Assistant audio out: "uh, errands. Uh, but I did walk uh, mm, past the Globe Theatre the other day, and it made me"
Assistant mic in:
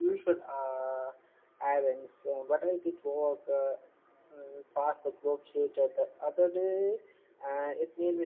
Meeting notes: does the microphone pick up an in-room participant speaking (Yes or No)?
No